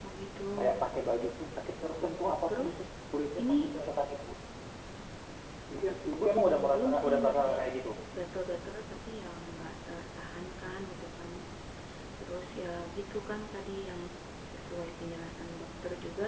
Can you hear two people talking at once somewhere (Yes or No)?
Yes